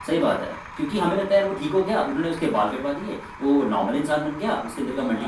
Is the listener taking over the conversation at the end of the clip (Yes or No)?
No